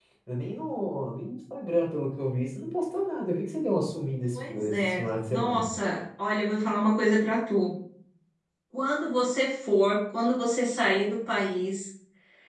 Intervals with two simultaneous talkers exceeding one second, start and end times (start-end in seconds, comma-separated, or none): 4.3-5.7